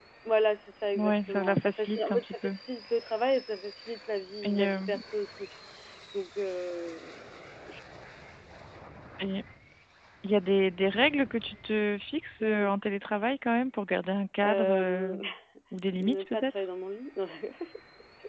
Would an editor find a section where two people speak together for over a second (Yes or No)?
Yes